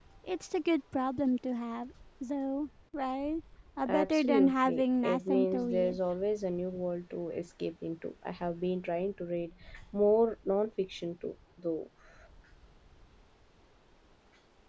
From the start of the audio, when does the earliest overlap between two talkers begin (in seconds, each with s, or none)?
3.9 s